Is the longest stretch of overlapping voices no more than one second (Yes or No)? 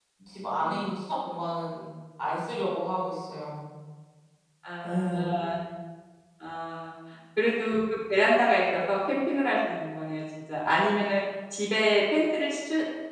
Yes